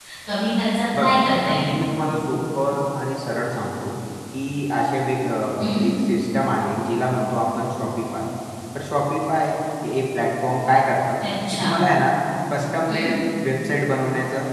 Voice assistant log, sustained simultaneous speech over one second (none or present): none